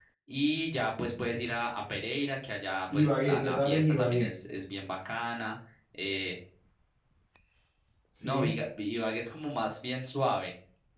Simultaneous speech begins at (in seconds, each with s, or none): 2.9 s